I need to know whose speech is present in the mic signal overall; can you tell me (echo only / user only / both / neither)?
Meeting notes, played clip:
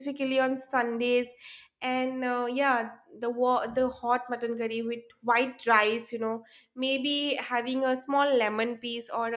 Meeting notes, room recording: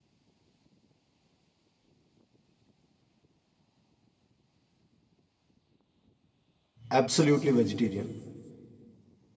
user only